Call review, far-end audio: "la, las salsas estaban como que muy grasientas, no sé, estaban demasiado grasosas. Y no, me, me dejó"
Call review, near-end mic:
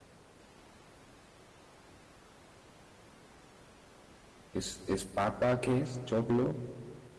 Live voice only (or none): Es, es papa, ¿qué es? Choclo,